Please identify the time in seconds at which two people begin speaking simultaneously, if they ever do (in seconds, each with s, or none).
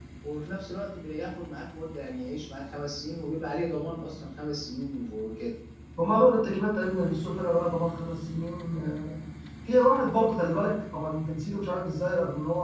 none